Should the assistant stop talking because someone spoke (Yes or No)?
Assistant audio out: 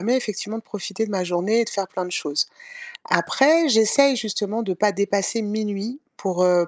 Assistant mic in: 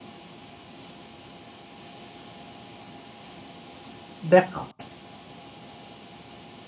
Yes